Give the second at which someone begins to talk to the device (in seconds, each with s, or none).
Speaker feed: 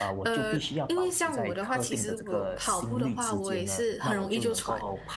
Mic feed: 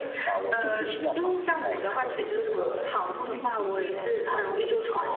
none